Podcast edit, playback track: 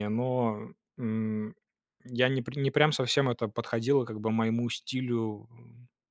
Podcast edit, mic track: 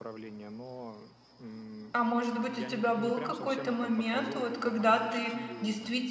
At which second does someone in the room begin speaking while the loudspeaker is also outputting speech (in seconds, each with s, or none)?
1.9 s